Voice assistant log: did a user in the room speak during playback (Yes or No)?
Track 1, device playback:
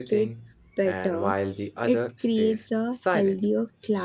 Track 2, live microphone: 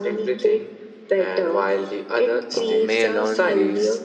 Yes